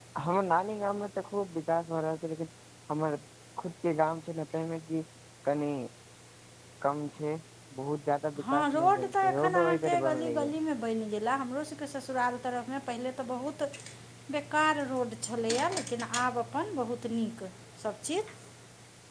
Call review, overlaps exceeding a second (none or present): present